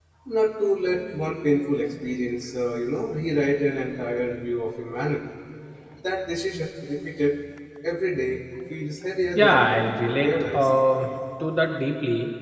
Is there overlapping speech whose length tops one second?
Yes, from 9.4 s

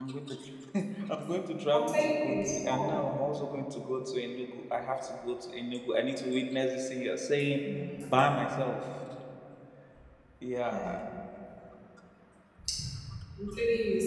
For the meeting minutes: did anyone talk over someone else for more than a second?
Yes, from 1.7 s

